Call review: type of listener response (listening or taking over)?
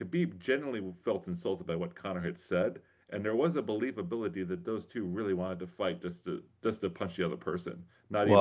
taking over